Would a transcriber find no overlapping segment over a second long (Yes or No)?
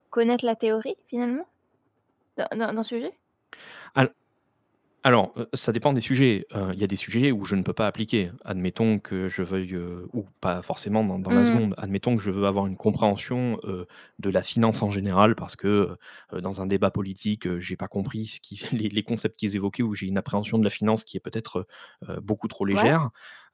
Yes